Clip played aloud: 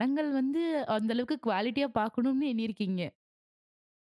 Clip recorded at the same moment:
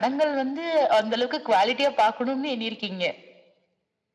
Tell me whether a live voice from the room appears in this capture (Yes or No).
No